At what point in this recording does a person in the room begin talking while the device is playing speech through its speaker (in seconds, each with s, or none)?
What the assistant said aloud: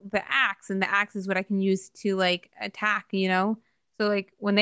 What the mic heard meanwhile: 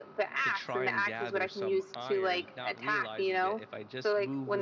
0.4 s